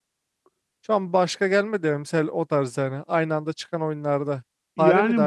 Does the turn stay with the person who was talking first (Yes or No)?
No